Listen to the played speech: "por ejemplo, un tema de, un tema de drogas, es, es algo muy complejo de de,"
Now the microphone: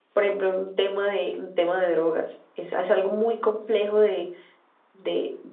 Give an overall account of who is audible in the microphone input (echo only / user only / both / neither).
echo only